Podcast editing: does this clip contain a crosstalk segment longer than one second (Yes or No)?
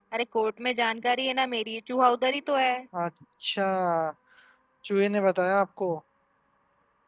No